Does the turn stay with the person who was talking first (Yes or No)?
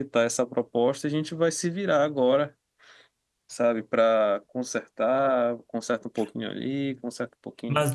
No